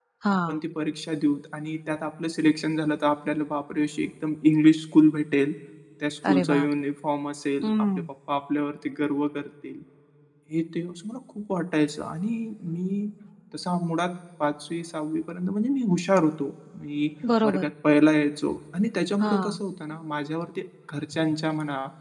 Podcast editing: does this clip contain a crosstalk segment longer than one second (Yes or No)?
No